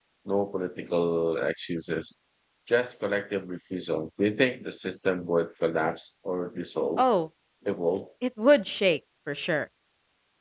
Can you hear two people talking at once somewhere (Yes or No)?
No